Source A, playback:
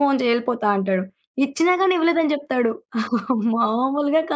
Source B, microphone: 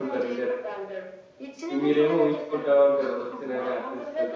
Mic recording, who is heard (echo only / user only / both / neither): both